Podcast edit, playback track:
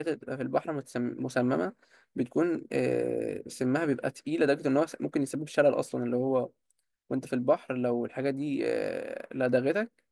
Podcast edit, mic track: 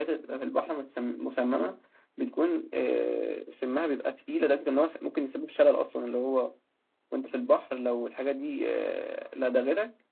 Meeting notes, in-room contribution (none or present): none